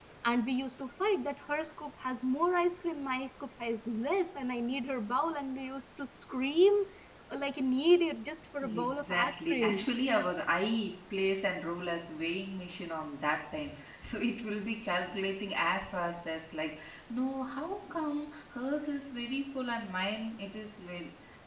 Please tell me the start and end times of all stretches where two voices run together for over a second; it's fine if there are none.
8.7-9.9

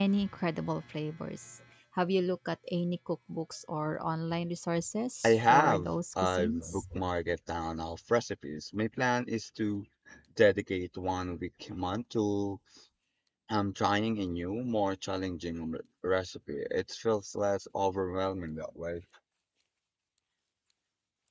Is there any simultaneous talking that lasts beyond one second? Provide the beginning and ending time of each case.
5.2-6.8

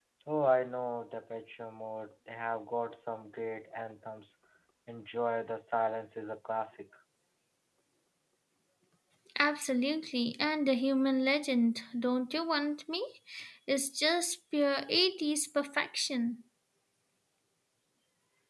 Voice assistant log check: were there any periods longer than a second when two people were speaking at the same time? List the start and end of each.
none

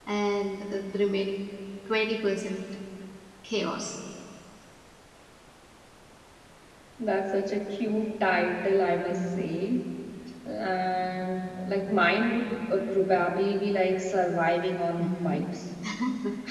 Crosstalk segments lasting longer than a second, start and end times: none

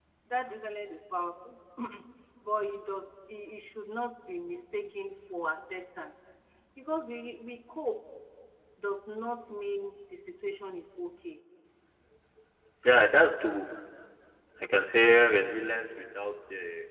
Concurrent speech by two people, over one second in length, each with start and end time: none

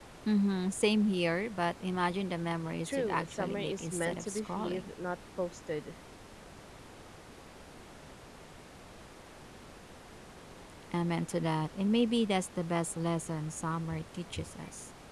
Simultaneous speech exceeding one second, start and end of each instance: 2.8-4.9

